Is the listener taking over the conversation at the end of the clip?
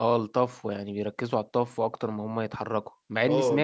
No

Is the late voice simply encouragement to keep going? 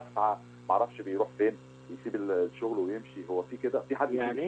No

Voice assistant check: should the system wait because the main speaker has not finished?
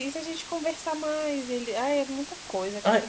No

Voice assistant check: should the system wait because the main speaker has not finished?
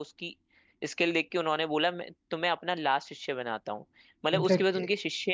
Yes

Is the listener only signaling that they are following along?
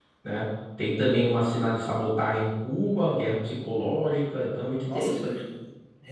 No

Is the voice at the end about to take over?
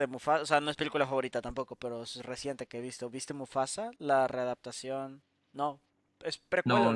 Yes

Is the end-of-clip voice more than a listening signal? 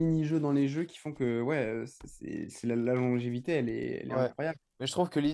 Yes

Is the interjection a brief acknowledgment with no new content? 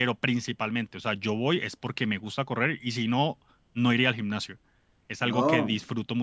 Yes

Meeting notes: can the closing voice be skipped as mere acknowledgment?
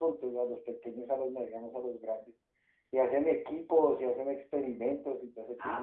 No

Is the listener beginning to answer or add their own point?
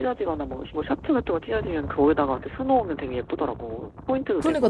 Yes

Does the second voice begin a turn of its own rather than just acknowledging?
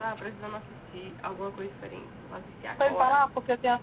Yes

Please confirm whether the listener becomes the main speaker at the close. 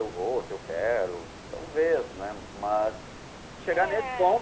No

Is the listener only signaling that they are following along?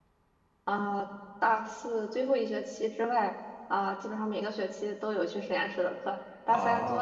Yes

